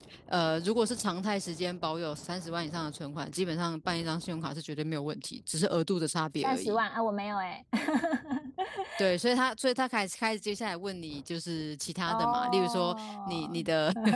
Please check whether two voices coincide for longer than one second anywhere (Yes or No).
Yes